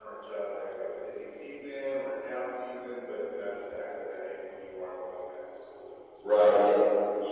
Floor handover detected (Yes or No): Yes